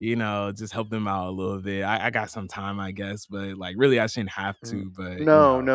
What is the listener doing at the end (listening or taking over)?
taking over